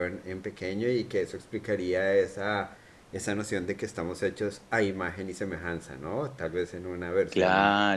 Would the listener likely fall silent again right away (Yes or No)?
No